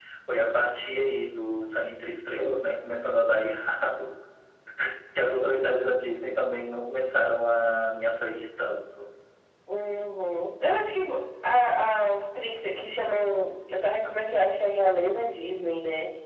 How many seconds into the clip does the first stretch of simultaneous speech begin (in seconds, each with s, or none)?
none